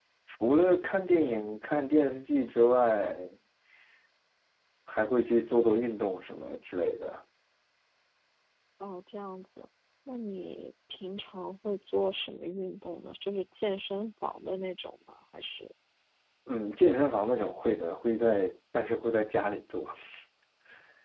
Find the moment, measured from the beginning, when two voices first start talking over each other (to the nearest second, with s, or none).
none